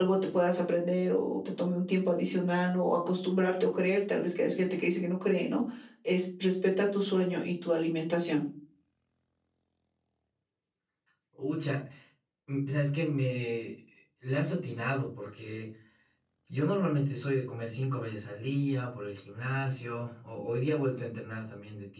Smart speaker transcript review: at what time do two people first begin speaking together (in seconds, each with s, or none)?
none